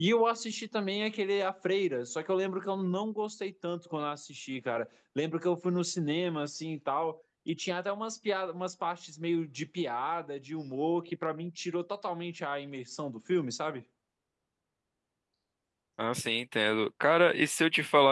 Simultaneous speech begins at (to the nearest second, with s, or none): none